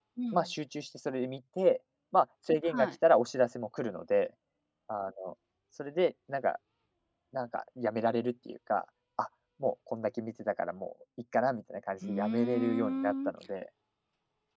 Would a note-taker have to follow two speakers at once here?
Yes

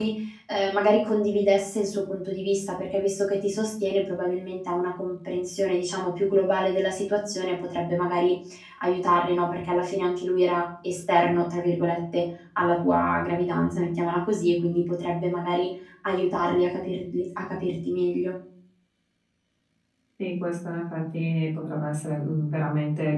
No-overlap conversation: Yes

